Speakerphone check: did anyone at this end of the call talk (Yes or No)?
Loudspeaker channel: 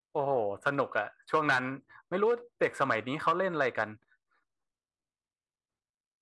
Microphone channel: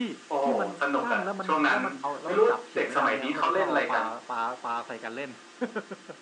Yes